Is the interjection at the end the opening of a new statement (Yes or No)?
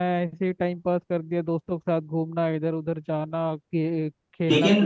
Yes